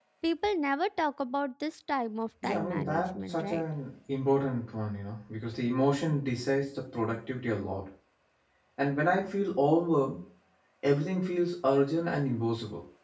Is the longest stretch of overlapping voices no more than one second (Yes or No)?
No